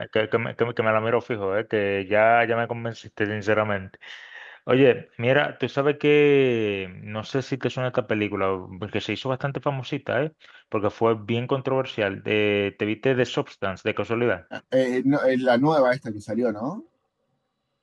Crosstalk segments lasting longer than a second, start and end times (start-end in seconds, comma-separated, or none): none